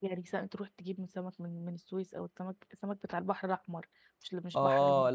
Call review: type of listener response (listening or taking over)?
taking over